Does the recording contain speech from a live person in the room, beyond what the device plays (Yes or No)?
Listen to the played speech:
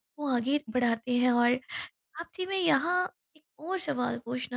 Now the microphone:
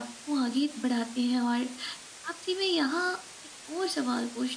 No